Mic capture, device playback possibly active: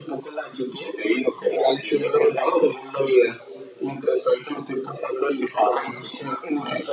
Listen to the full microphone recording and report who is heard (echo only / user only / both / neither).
echo only